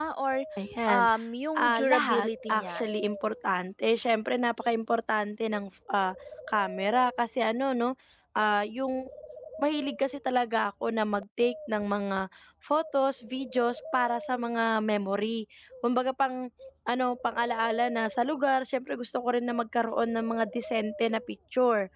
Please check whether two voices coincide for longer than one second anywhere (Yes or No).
Yes